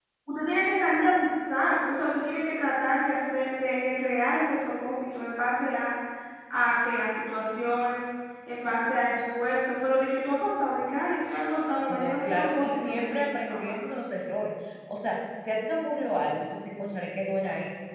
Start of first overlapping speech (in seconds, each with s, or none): 11.9 s